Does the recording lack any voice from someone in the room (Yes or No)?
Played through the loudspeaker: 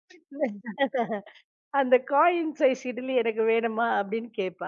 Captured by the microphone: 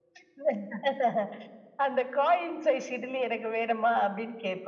Yes